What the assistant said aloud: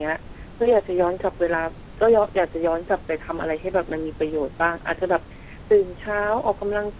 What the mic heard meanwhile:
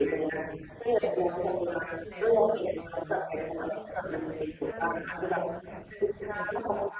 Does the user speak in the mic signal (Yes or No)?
Yes